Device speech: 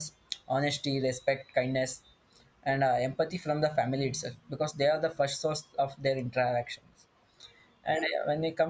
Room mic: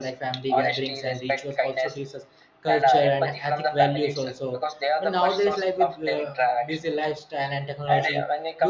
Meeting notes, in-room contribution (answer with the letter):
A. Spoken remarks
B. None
A